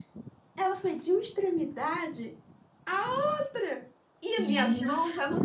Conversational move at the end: listening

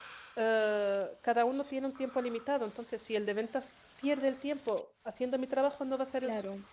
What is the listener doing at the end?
taking over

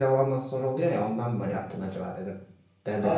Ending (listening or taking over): taking over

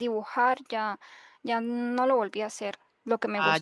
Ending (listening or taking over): listening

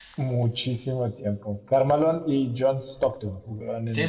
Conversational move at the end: taking over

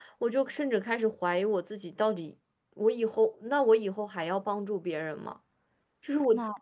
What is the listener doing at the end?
listening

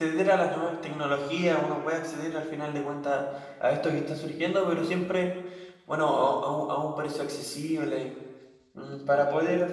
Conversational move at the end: listening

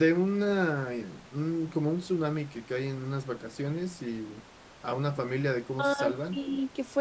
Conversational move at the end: taking over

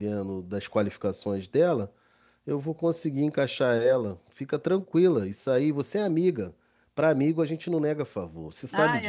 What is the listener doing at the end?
taking over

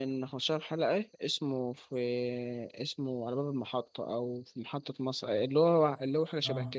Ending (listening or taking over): taking over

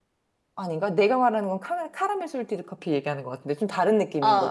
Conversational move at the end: taking over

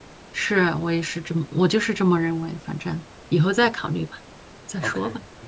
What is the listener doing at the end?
taking over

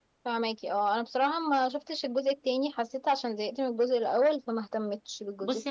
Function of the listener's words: taking over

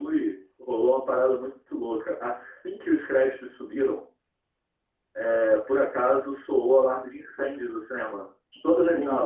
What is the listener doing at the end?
listening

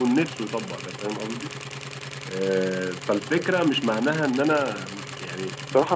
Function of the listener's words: taking over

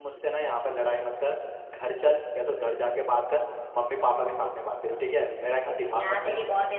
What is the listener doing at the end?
taking over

